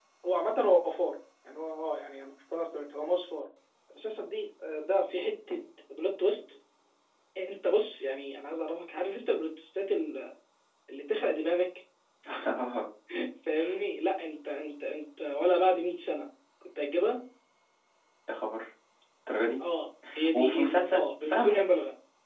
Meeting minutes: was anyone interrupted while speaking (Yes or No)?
Yes